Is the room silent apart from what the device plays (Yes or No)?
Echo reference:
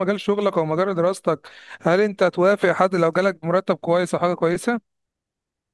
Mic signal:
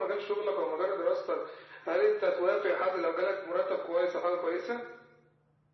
Yes